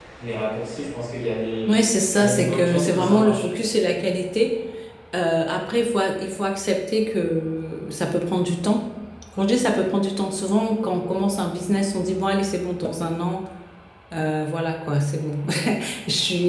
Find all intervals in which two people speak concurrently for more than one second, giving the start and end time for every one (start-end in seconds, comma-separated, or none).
2.2-3.5